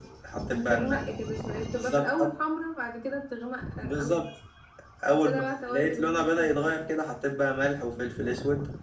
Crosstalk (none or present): present